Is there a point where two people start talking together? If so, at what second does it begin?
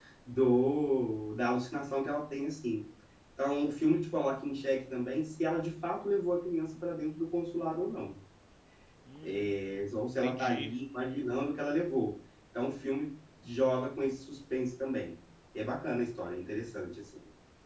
9.2 s

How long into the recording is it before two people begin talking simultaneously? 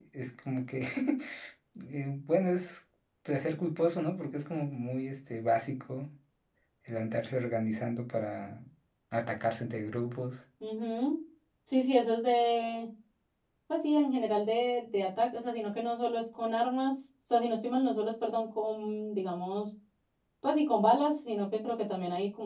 none

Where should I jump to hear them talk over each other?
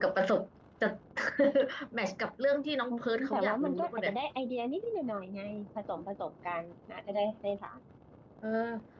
2.9 s

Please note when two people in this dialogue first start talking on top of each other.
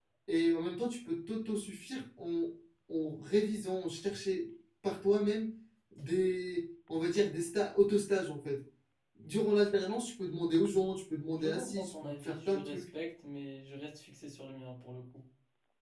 11.3 s

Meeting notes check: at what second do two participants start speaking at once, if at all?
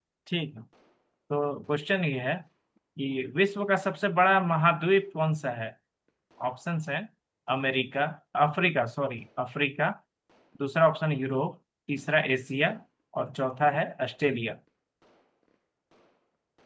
none

